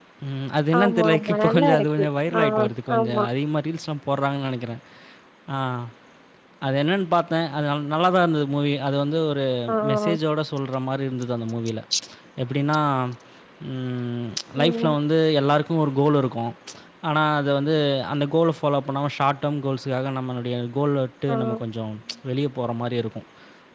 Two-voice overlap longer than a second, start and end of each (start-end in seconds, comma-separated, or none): 0.8-2.0